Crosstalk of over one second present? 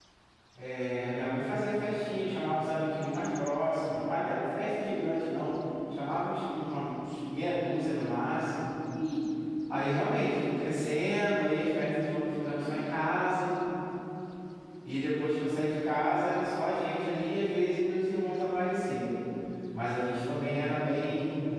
No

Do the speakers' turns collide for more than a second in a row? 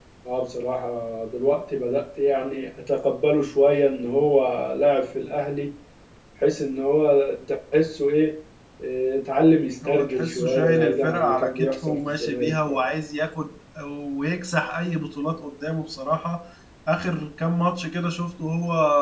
Yes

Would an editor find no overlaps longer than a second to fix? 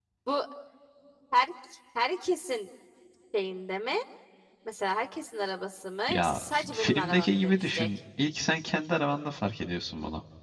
No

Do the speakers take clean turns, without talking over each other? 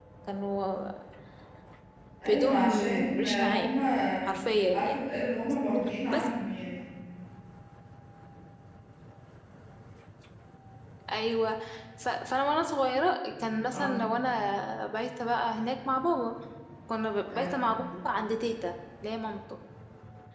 No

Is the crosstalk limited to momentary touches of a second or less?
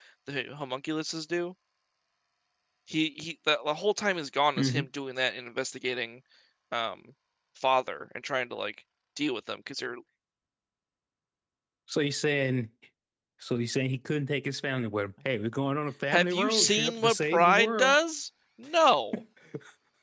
No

